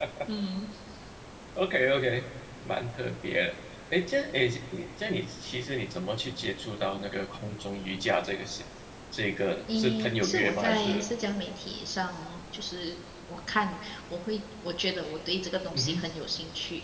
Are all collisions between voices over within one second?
No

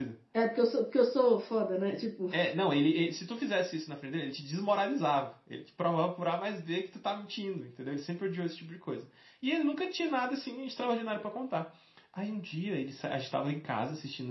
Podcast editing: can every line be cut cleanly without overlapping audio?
Yes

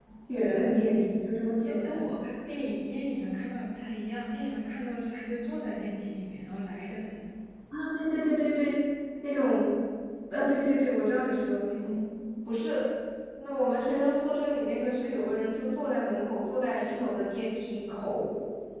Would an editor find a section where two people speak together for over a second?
No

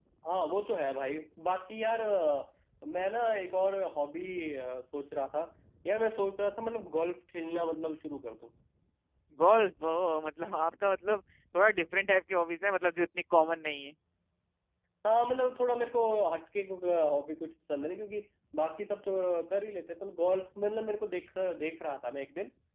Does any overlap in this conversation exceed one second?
No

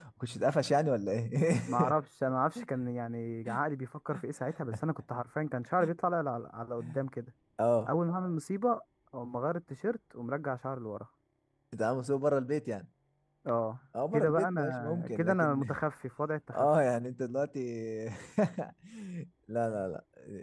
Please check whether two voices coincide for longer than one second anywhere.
Yes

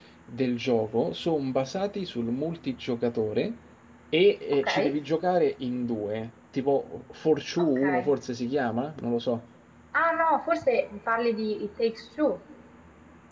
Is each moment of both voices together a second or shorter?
Yes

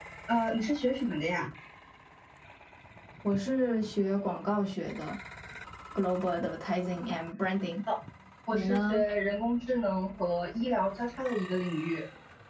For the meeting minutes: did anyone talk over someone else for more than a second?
No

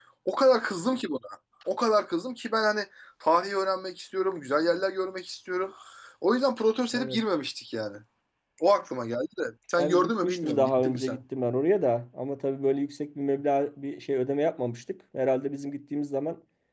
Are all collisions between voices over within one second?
No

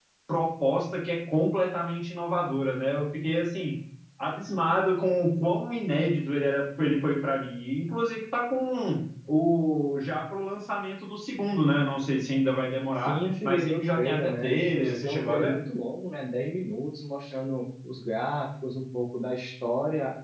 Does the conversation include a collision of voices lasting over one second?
Yes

